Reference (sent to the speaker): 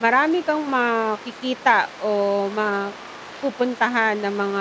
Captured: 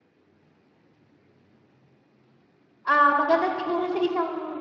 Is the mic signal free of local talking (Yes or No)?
No